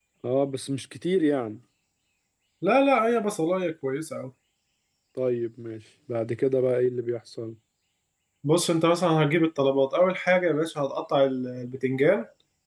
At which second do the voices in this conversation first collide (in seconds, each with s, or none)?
none